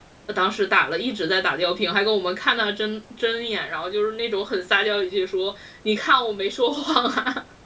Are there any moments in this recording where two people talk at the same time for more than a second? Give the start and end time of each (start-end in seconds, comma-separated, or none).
none